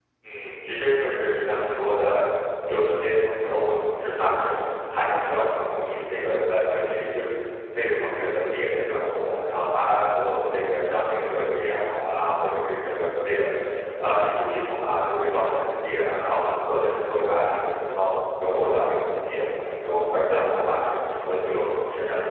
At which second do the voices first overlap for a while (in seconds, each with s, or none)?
none